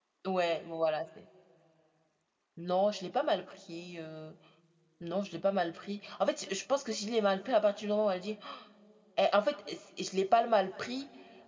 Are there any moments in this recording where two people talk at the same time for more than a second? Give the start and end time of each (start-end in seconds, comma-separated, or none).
none